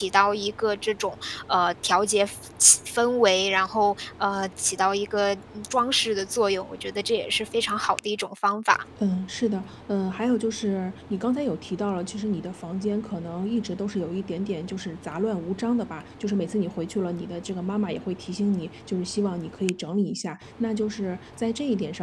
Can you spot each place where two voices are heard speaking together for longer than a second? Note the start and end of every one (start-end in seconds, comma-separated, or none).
none